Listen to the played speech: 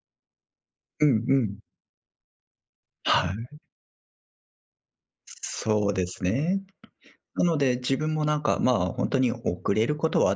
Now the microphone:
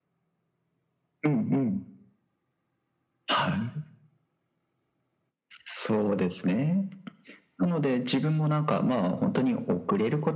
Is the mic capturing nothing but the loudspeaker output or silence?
Yes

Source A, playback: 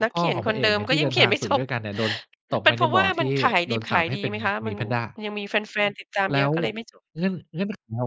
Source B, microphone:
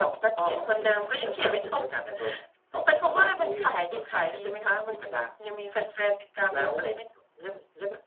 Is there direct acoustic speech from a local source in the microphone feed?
No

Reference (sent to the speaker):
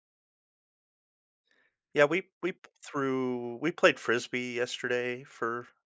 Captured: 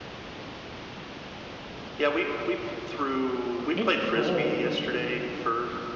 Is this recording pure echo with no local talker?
No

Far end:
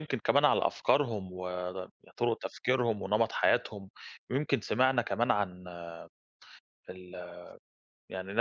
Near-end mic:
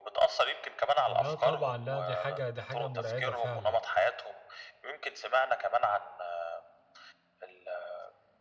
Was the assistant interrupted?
Yes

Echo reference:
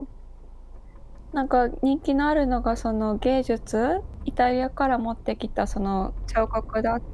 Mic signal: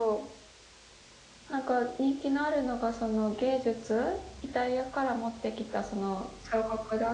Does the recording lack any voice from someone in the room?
Yes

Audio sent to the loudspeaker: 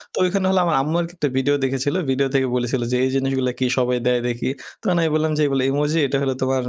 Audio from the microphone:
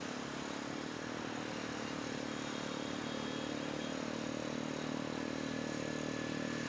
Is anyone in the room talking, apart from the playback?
No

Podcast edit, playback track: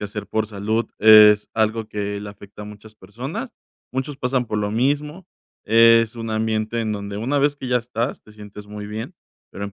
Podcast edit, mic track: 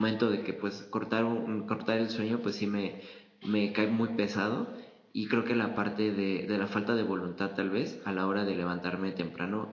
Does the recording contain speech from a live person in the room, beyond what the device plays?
Yes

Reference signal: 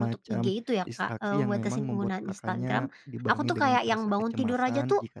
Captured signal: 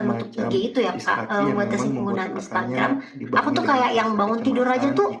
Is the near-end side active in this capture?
No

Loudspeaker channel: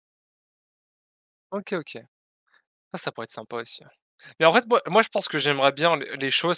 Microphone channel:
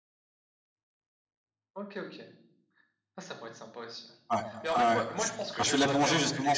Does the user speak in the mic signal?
Yes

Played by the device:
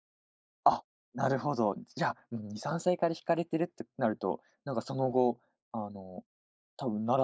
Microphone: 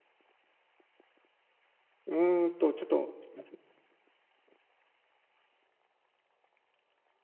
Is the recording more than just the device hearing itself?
Yes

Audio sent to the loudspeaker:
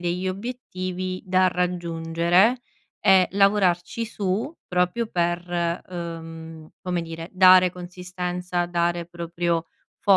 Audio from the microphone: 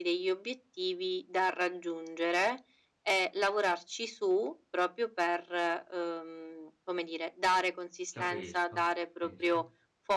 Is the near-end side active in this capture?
Yes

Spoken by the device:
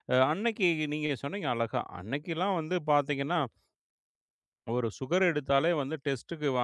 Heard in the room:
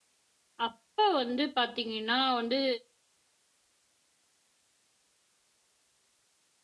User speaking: Yes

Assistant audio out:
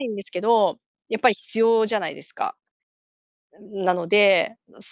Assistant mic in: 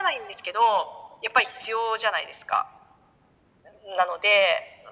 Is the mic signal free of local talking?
Yes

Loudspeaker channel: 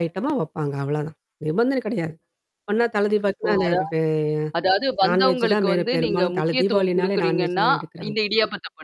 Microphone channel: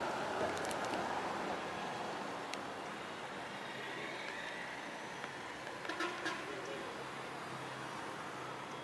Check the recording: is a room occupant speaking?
No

